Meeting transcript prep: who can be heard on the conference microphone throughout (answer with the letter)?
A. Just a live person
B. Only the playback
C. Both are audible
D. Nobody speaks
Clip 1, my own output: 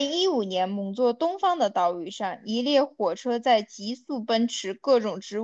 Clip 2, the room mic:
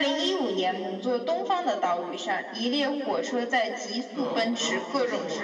C